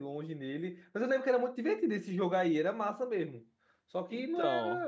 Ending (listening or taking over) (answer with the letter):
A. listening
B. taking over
A